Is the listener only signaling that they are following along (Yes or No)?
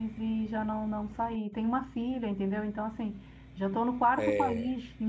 Yes